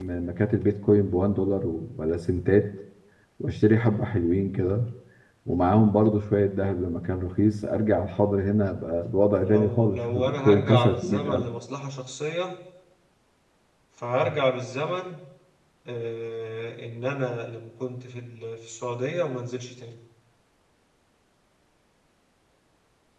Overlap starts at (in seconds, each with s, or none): 9.4 s